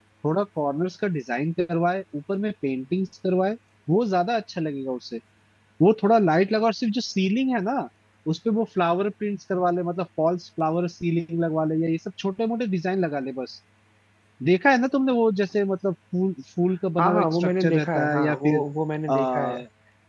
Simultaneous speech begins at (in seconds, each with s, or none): 17.0 s